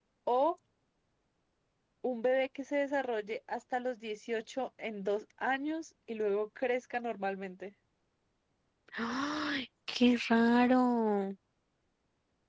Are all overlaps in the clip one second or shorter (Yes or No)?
Yes